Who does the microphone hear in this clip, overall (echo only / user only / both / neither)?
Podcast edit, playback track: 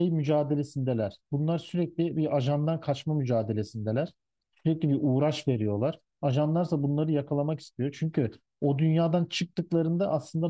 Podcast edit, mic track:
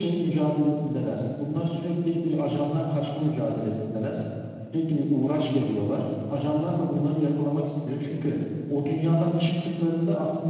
echo only